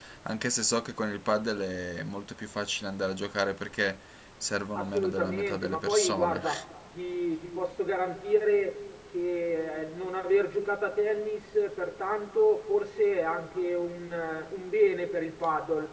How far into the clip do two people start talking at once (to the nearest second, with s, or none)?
5 s